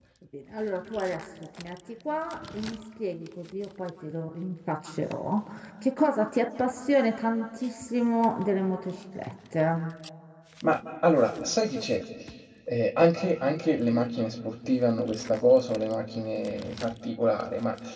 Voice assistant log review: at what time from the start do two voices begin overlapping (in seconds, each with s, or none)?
none